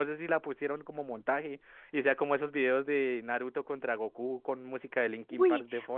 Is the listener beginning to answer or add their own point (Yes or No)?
Yes